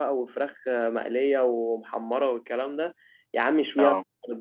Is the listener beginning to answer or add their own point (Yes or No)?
No